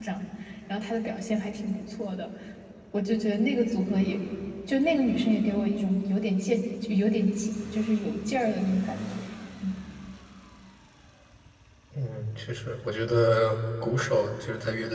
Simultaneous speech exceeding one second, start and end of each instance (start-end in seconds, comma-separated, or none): none